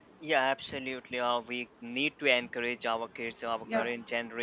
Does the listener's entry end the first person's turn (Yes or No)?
No